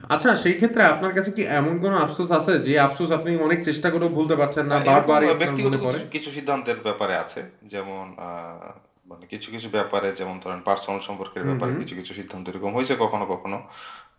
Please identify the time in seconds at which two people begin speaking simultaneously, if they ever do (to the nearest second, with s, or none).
5 s